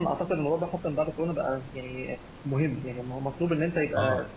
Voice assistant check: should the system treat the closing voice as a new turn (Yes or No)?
No